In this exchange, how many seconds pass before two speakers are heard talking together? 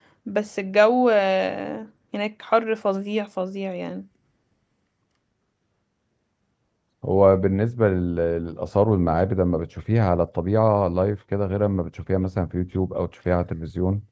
none

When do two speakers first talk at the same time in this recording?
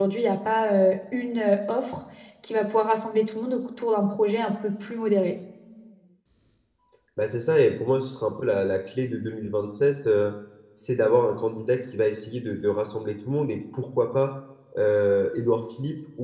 none

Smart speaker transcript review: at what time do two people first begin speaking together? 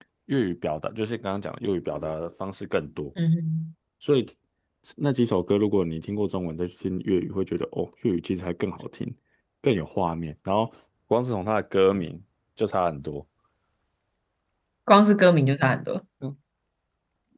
none

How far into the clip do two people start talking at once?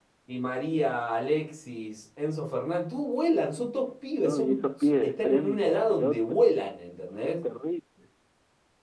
4 s

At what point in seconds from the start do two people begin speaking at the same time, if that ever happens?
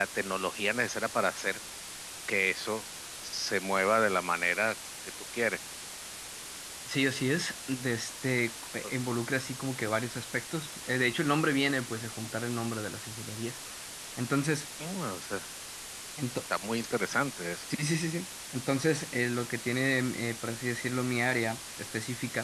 none

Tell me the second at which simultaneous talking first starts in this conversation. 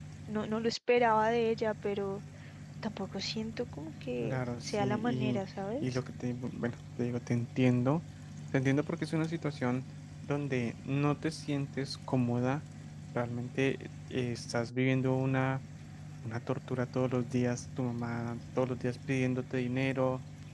4 s

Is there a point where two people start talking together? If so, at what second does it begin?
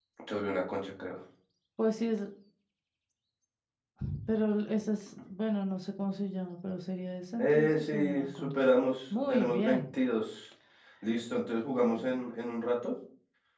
7 s

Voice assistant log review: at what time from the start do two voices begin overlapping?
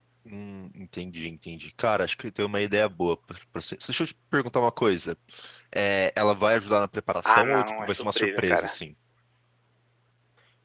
7 s

